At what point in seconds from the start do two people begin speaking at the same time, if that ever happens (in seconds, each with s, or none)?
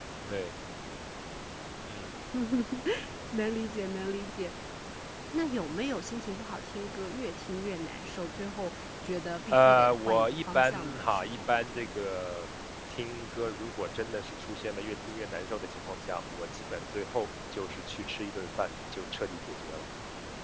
9.5 s